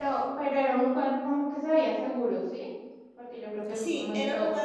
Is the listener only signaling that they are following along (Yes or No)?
No